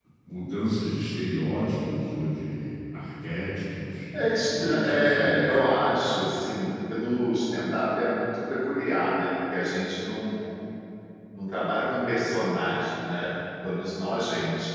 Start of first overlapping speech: 4.1 s

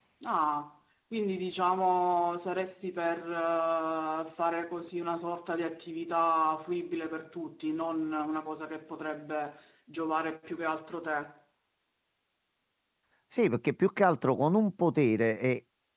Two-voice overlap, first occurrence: none

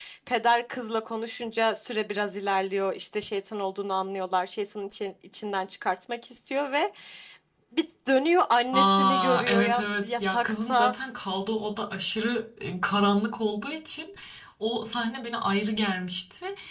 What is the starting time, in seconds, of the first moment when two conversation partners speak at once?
8.7 s

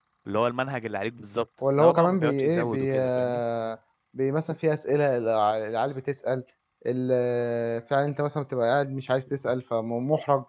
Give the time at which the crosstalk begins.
1.6 s

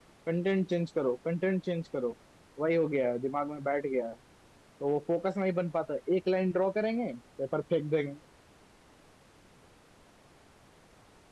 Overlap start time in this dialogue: none

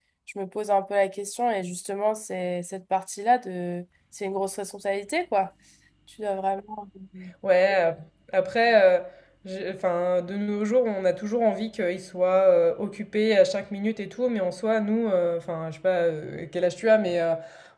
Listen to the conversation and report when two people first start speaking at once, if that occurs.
none

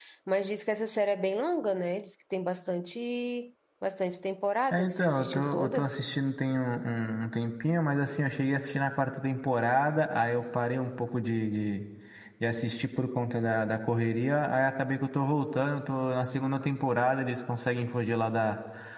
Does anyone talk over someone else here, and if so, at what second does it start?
4.7 s

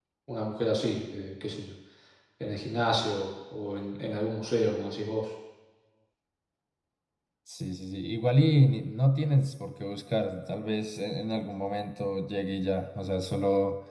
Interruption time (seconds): none

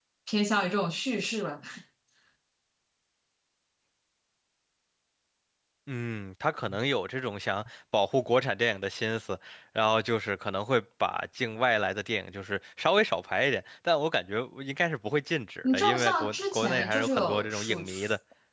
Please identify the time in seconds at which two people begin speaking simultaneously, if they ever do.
15.6 s

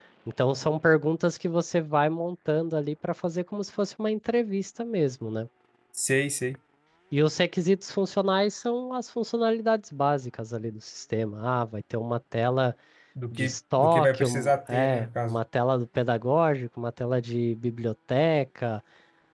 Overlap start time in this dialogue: 13.3 s

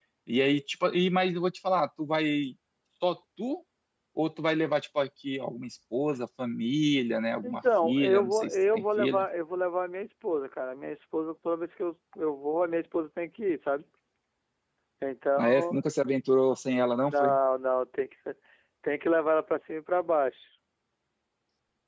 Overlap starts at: 7.4 s

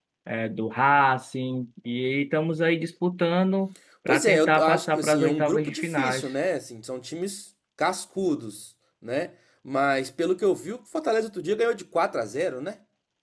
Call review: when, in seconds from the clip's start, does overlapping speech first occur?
4.1 s

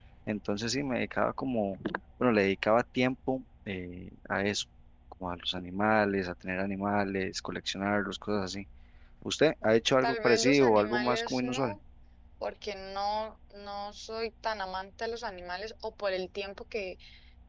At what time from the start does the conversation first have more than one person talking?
10.0 s

